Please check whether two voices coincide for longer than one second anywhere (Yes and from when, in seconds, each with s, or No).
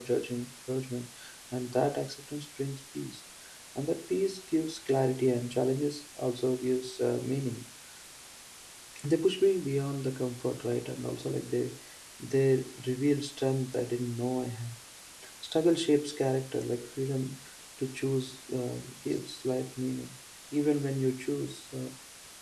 No